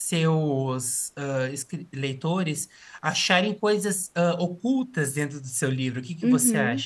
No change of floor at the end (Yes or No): No